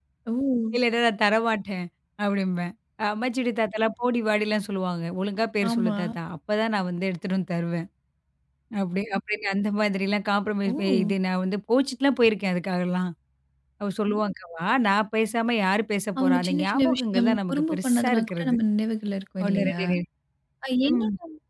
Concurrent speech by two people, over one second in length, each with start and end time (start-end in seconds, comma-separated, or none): 16.2-18.6